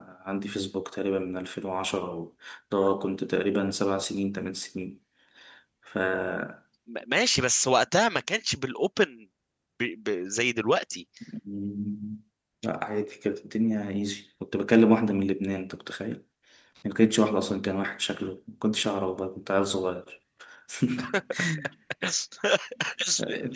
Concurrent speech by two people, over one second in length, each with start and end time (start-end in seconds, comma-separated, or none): none